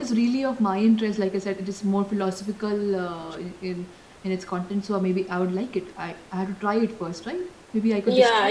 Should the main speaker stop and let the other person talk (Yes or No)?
Yes